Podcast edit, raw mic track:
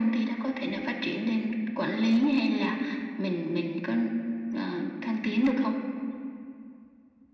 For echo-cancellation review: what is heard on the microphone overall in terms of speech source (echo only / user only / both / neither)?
echo only